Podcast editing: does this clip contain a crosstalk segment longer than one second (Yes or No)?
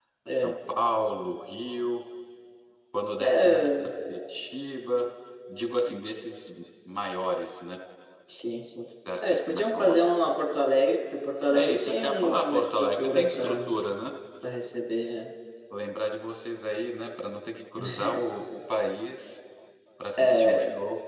Yes